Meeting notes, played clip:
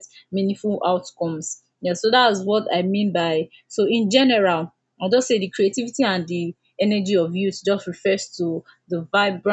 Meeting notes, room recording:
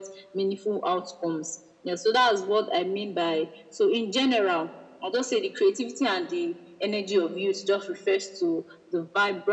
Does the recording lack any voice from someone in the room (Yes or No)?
Yes